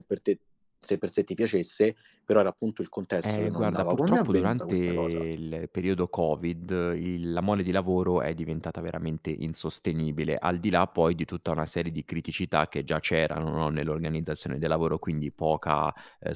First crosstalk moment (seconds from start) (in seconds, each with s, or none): 3.2 s